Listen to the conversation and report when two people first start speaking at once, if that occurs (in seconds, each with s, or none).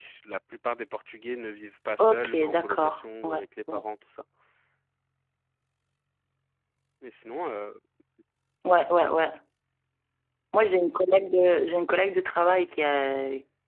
2.0 s